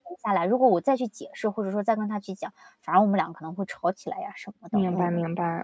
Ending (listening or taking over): taking over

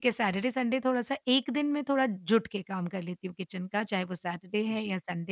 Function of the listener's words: taking over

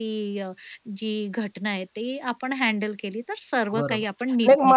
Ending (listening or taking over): taking over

